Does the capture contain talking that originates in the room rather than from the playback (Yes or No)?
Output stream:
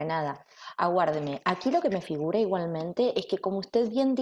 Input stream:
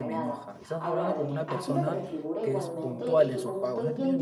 Yes